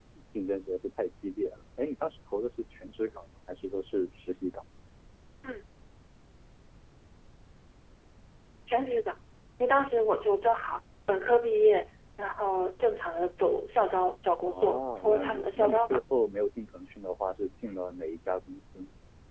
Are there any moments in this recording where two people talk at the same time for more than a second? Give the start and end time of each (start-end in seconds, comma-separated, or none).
14.5-16.0